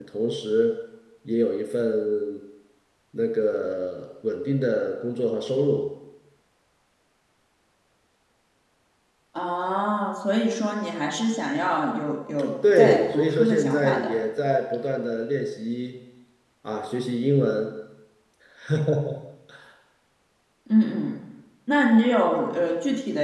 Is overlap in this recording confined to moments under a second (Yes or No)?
No